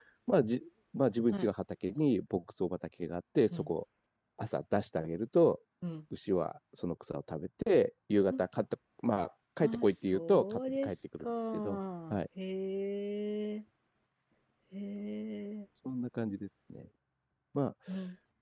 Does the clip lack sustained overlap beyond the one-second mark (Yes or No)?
No